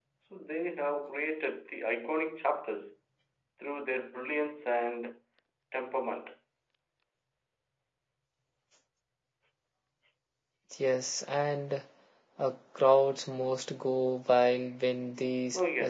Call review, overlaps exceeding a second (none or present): none